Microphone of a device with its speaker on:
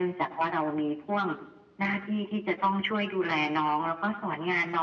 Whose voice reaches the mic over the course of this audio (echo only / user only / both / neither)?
echo only